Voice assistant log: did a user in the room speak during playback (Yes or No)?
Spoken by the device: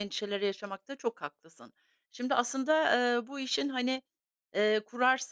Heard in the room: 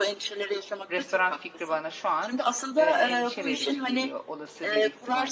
Yes